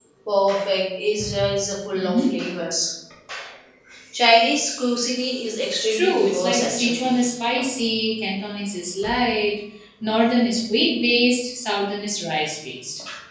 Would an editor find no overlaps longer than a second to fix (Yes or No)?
No